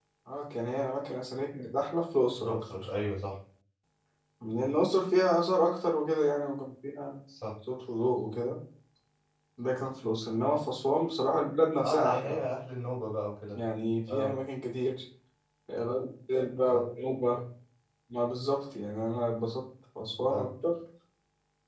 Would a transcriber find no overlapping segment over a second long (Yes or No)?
Yes